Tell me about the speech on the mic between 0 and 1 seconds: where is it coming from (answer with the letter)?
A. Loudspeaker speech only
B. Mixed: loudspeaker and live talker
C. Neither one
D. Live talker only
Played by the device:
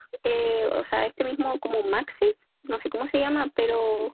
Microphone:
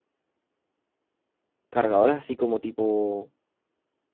C